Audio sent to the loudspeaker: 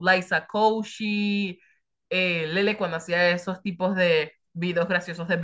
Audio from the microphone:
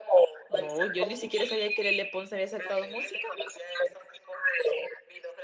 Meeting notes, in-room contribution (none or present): present